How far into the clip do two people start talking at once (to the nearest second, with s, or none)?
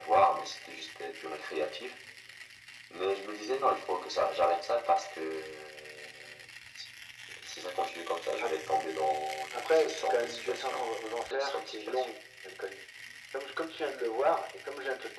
10 s